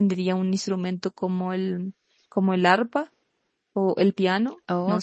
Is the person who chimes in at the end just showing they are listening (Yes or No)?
No